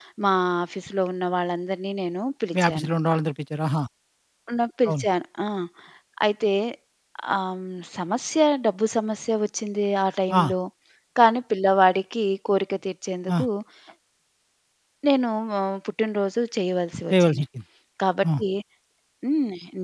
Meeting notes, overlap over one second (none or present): none